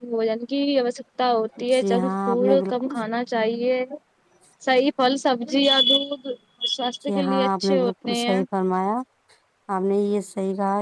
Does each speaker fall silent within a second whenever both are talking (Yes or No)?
No